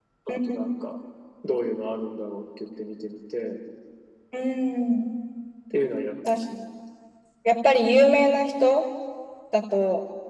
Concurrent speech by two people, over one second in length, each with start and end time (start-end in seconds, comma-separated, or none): none